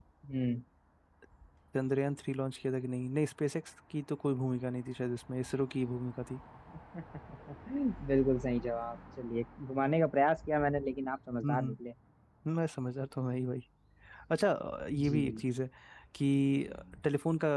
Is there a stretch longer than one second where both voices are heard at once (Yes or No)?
No